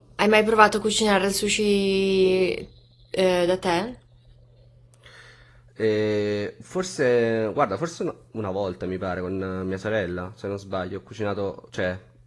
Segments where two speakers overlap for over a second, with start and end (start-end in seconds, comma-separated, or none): none